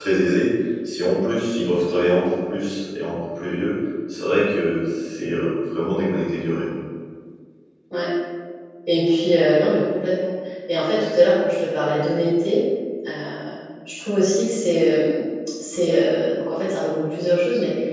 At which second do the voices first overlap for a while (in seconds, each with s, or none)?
none